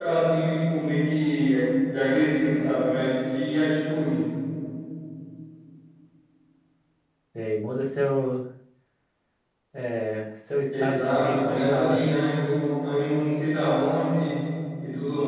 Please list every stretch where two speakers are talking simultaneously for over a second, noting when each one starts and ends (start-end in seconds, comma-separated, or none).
10.8-12.2